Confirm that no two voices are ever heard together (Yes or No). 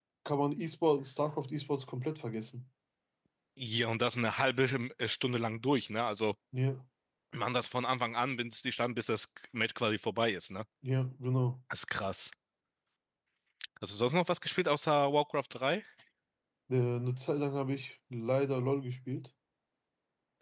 Yes